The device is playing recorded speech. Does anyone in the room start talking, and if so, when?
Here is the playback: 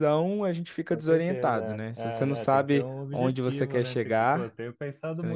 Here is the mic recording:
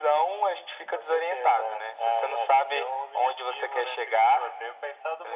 none

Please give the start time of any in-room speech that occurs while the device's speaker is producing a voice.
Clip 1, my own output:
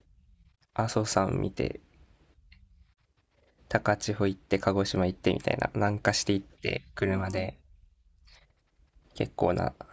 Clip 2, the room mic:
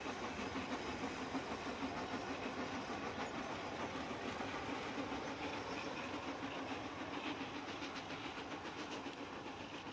none

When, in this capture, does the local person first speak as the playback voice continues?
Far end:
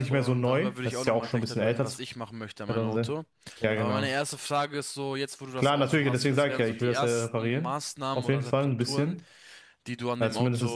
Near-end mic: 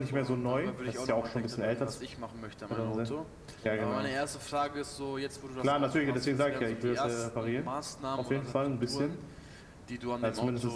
none

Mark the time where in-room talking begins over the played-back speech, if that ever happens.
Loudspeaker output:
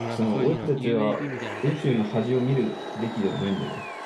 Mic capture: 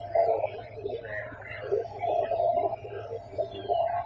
none

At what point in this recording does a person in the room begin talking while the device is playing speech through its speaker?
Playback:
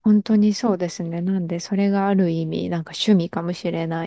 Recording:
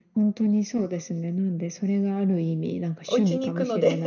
3 s

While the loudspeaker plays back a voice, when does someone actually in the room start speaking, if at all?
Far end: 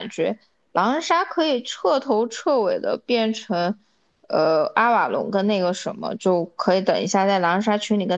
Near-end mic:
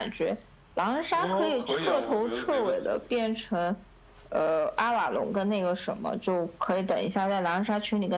1 s

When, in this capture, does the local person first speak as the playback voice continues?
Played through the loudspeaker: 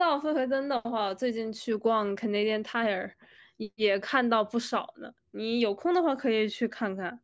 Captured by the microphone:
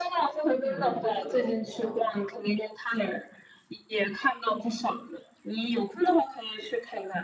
1 s

